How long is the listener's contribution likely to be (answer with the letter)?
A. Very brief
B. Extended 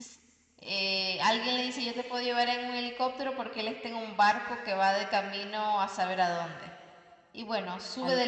B